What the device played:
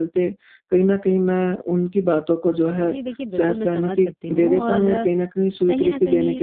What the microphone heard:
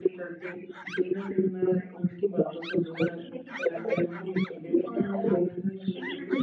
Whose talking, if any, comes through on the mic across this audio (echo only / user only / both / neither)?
echo only